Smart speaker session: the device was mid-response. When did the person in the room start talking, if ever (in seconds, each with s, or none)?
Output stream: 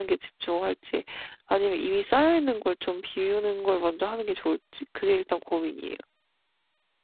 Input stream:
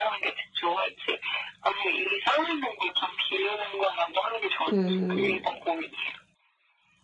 4.7 s